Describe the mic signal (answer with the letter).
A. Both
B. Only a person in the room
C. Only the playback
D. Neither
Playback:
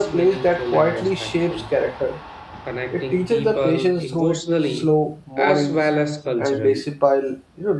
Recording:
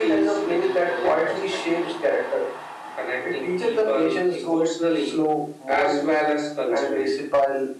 C